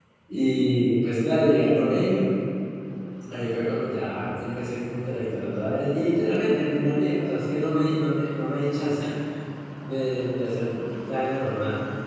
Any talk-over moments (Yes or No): No